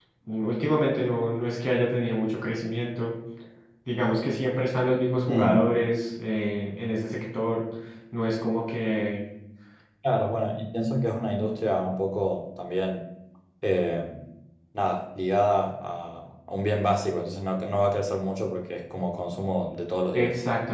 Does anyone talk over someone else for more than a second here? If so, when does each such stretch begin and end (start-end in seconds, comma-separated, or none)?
none